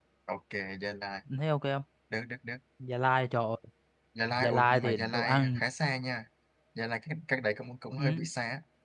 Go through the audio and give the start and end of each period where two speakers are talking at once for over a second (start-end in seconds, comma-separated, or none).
4.4-5.6